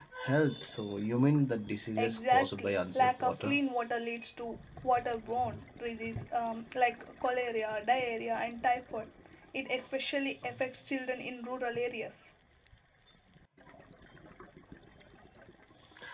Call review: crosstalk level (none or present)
present